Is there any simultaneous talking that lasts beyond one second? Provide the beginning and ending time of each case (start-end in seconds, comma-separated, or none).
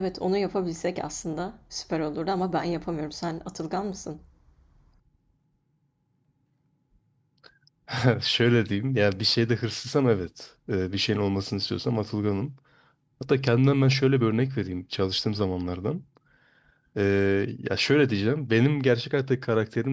none